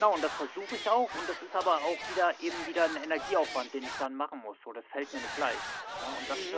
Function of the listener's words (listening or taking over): taking over